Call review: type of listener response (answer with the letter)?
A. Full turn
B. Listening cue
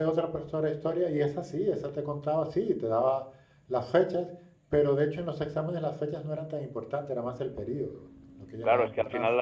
A